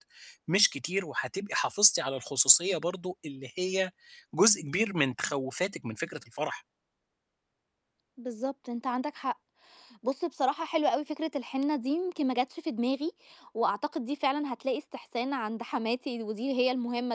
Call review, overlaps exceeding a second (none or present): none